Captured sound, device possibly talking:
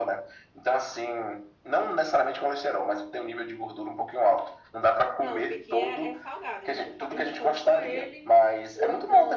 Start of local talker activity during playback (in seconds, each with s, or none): 5.2 s